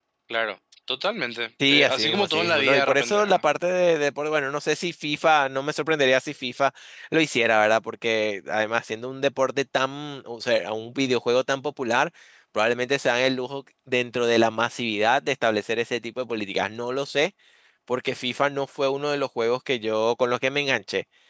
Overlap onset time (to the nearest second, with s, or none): 2 s